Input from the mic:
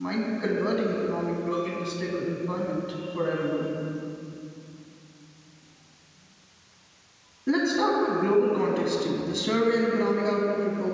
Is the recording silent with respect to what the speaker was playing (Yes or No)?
Yes